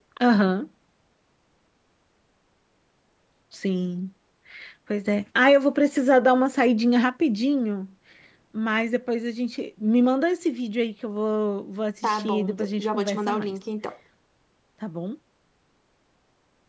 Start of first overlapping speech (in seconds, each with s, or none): 12.0 s